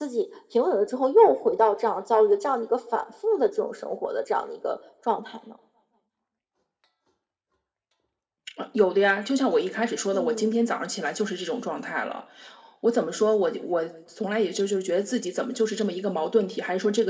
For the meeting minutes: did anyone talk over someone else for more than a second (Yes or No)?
No